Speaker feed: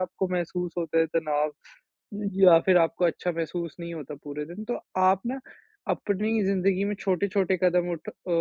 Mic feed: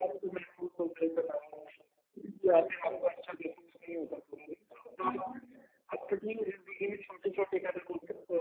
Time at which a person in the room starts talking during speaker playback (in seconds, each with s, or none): 5.0 s